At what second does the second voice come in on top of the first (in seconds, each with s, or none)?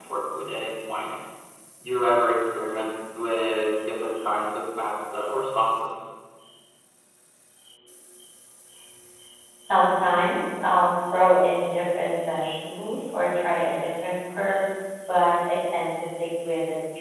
none